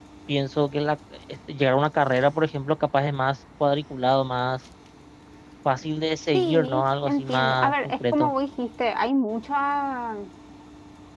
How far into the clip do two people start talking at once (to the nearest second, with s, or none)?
6 s